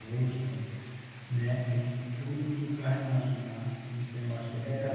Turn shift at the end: Yes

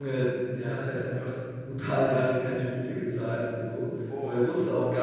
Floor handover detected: No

